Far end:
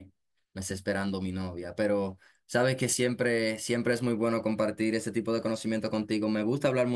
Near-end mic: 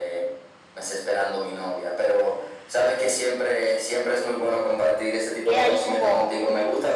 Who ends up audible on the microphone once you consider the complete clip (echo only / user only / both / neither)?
both